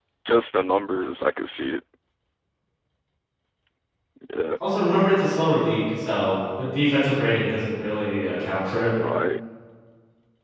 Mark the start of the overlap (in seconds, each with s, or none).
none